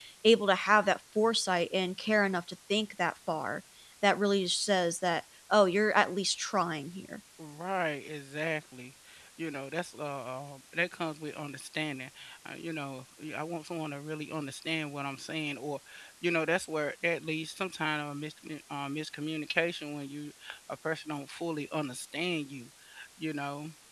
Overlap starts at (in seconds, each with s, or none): none